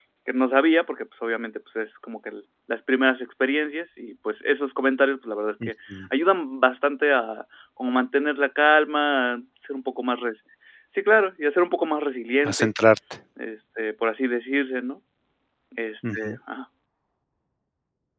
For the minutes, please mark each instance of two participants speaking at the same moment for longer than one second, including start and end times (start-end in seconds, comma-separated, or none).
none